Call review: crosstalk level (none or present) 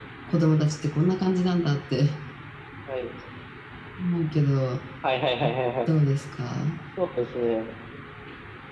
none